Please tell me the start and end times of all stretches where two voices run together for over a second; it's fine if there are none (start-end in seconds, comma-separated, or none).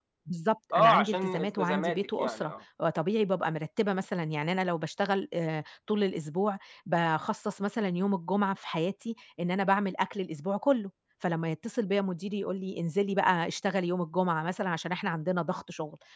0.7-2.5